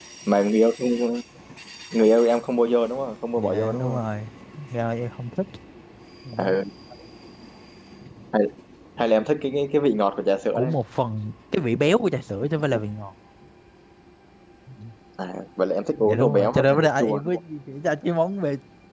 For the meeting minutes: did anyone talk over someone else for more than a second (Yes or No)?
Yes